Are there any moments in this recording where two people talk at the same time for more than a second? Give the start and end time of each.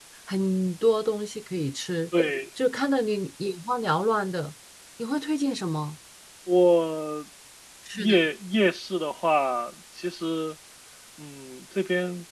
none

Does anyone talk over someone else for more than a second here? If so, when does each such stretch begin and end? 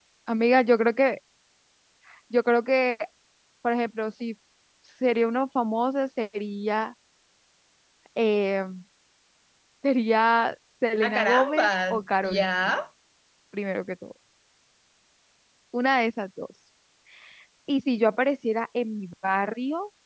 11.1-12.7

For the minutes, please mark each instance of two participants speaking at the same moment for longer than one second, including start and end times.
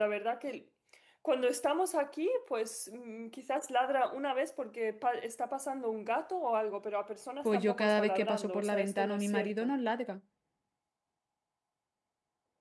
7.4-9.7

